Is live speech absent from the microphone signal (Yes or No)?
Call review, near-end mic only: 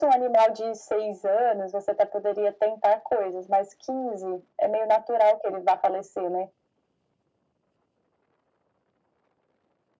Yes